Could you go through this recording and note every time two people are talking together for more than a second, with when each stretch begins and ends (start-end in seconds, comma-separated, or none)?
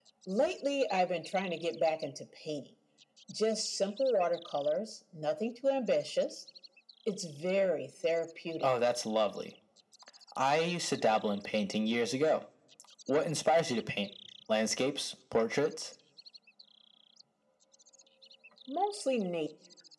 none